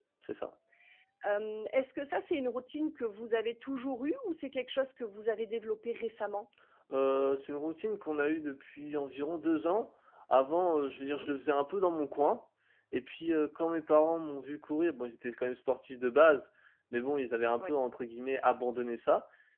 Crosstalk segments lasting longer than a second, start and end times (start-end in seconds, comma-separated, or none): none